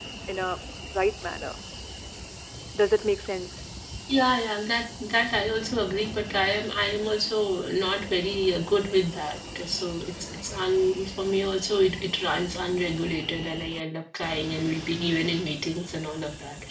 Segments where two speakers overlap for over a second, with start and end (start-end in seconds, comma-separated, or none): none